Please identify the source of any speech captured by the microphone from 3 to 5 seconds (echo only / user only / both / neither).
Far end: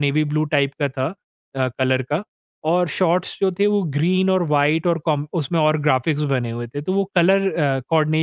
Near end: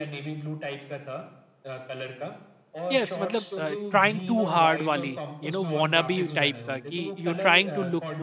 both